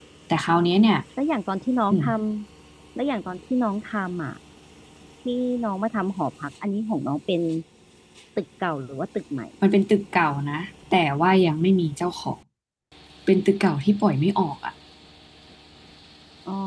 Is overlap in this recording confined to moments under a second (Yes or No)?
Yes